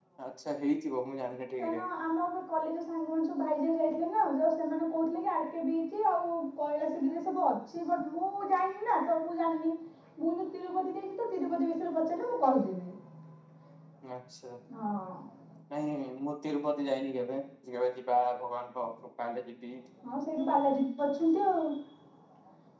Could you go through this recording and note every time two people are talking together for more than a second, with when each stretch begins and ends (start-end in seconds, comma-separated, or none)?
none